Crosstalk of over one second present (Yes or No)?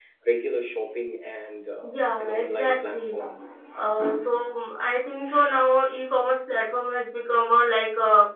Yes